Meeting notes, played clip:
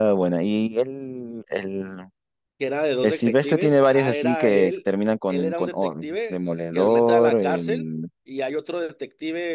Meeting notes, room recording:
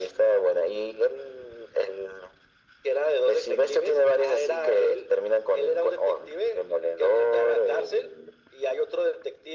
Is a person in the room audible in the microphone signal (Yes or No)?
No